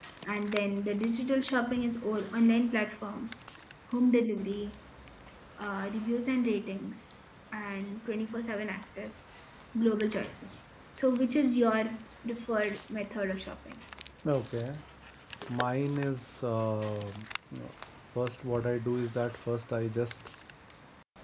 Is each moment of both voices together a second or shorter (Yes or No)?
Yes